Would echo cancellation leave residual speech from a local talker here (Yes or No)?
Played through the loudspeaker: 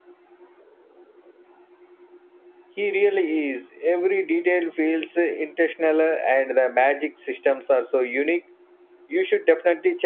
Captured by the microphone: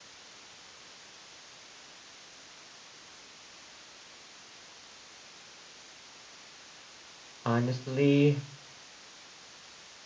Yes